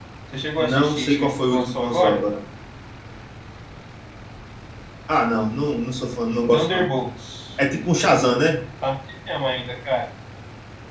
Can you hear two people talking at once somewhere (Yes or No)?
Yes